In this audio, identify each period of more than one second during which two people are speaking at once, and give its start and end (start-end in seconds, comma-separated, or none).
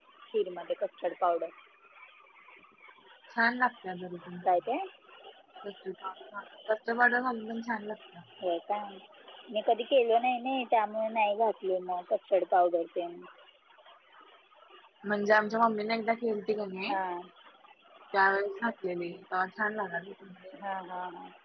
none